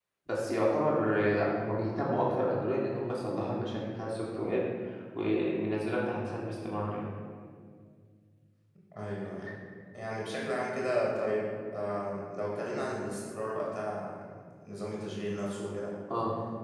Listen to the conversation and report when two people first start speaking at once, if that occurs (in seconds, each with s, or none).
none